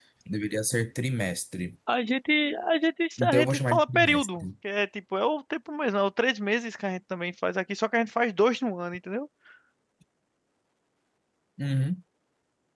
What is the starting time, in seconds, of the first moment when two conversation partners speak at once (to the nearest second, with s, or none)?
3 s